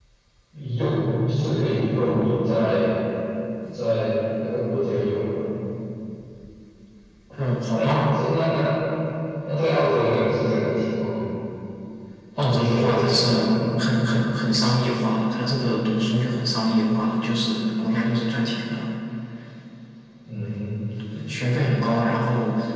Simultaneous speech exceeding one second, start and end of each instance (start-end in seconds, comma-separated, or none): 12.4-13.6